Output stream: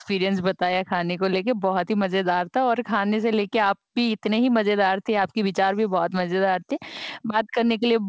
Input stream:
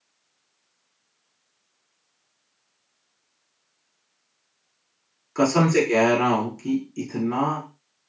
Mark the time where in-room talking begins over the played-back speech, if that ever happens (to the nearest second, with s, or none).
5 s